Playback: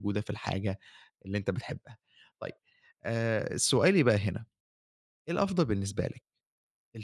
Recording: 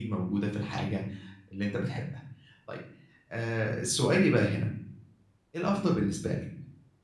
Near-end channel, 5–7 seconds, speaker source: echo only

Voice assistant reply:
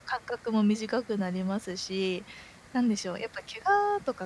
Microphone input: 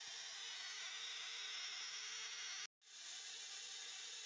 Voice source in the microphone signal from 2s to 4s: neither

